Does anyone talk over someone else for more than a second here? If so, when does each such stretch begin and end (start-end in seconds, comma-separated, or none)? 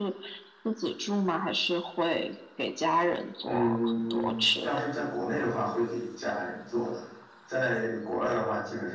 3.5-4.8